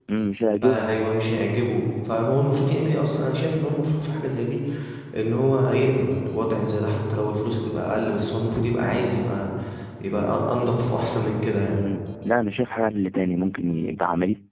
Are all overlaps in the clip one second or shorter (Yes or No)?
Yes